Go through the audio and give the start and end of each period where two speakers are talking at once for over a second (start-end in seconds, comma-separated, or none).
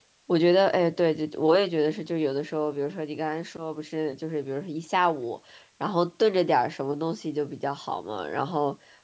none